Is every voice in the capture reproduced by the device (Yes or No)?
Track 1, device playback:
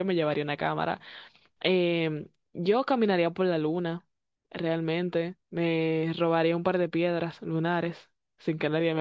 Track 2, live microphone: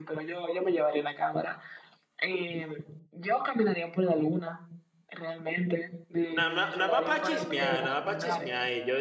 No